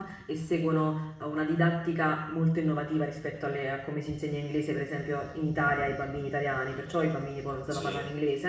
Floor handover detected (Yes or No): No